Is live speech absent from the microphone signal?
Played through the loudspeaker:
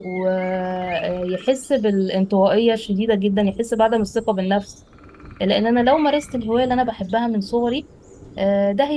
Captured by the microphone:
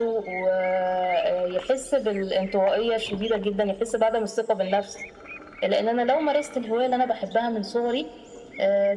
Yes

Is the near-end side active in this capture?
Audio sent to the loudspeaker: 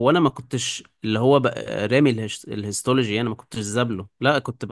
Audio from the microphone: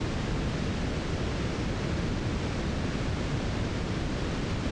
No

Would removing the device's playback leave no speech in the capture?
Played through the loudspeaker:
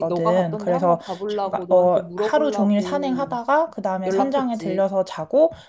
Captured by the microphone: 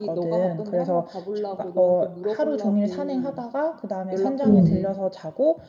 No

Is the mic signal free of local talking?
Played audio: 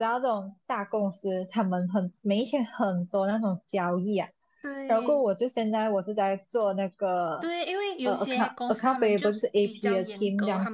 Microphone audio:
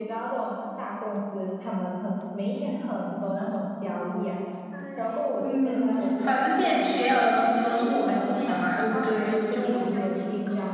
No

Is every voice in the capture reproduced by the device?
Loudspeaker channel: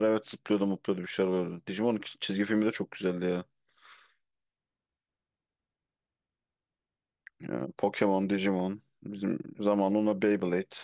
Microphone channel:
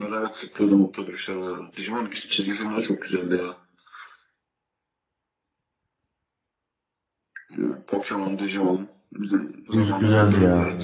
No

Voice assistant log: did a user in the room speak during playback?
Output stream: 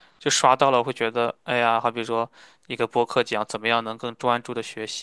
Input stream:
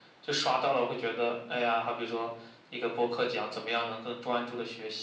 No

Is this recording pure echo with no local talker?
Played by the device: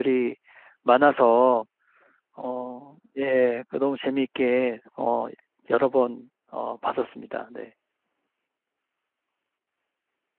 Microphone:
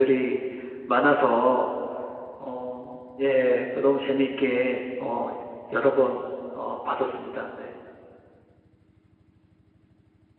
Yes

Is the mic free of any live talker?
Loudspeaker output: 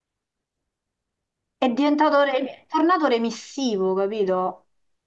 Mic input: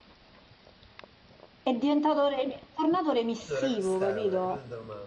No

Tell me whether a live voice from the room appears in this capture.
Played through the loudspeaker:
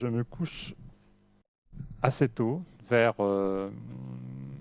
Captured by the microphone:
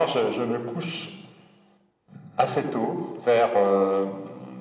No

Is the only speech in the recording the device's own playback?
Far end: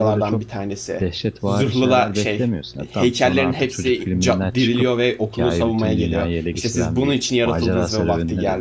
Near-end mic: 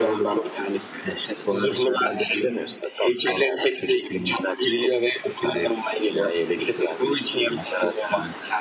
Yes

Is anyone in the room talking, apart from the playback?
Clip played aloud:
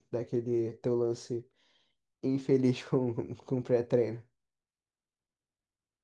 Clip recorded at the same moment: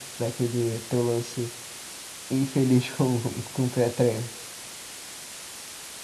No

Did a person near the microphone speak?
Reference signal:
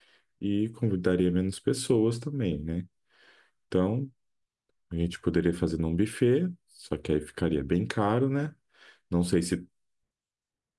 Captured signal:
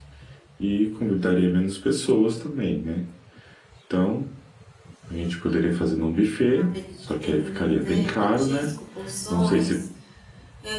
Yes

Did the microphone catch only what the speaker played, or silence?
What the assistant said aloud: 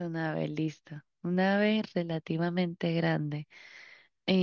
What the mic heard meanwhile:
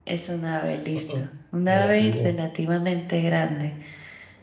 No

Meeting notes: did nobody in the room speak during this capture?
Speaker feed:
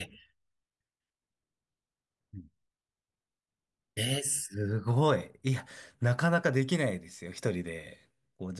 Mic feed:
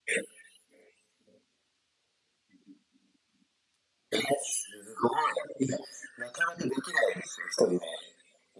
Yes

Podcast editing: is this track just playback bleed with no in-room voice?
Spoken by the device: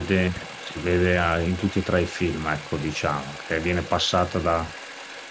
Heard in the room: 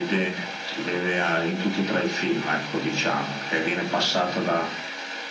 Yes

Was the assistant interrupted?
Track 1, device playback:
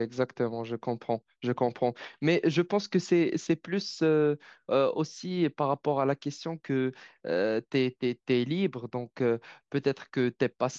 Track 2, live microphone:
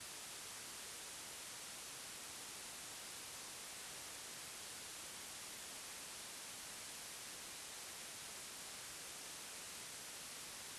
No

